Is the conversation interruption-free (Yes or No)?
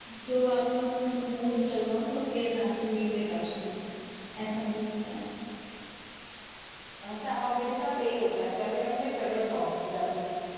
Yes